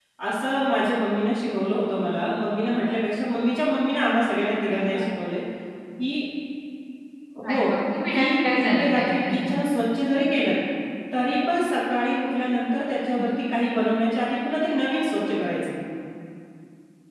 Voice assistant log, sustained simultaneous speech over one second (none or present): present